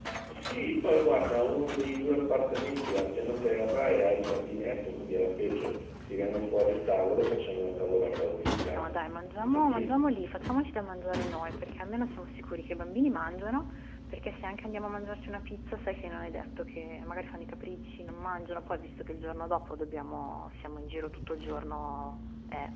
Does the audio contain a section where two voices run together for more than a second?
No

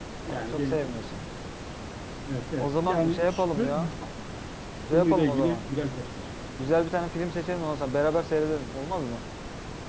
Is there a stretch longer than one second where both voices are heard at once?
Yes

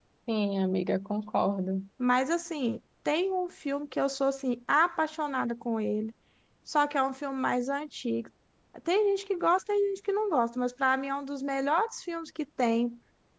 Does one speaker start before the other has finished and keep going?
No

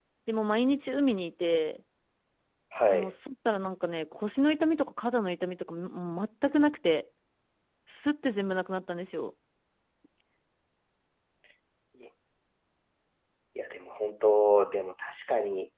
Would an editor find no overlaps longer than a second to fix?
Yes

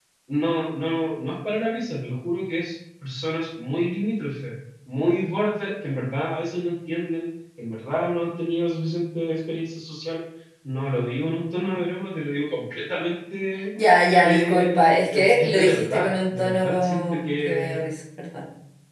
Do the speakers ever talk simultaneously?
Yes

